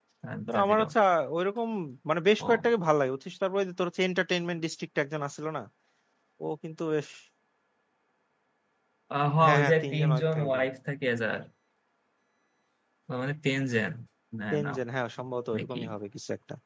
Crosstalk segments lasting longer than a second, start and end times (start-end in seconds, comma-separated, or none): 9.4-10.7